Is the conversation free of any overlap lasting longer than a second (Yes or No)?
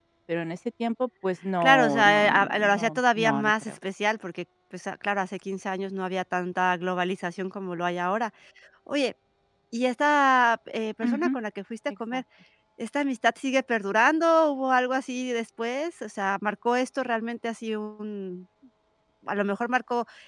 No